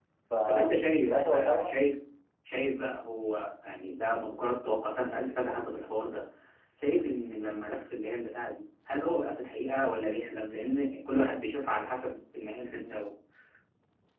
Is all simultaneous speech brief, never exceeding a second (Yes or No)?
No